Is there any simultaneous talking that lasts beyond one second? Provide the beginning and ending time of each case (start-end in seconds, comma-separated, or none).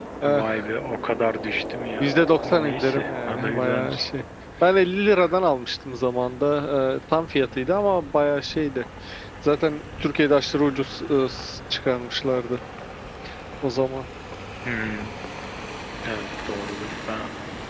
2.0-4.1